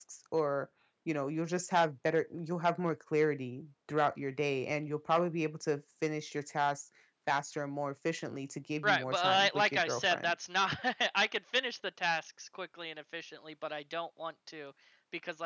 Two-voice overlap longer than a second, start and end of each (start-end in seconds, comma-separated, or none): 8.8-10.3